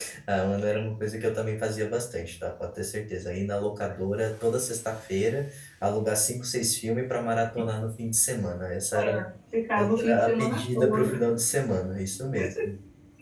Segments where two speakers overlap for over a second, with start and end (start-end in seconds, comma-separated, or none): 9.8-11.1